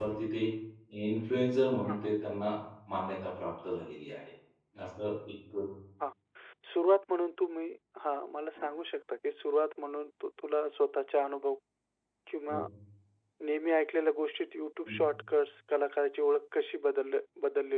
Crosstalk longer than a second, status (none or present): none